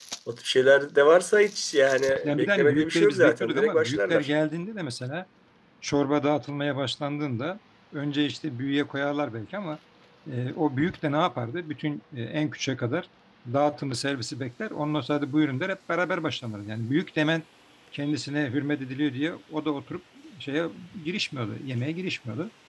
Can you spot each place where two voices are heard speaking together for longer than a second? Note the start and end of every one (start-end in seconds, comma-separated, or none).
2.2-4.3